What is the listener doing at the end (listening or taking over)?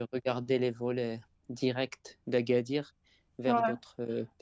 listening